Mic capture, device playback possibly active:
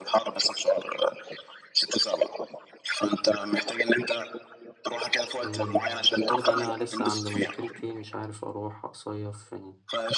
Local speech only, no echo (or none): آه، برضه أنا لسه عندي مشكلتي مش عارف أروح أصيف فين